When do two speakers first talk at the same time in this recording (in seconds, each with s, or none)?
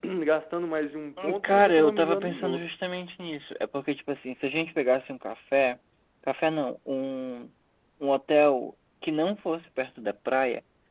1.4 s